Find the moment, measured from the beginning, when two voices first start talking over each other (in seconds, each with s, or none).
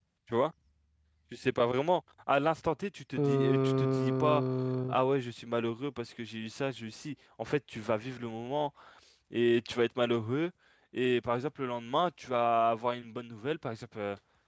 3.2 s